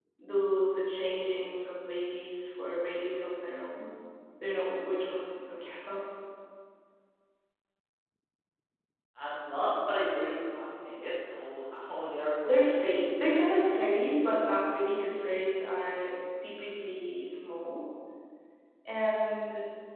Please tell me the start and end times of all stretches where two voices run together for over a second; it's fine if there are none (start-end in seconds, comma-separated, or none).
none